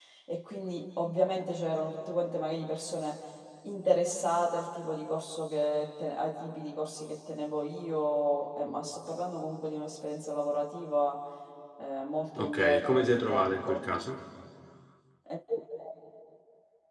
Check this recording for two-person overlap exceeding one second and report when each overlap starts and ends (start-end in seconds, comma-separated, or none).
12.4-13.8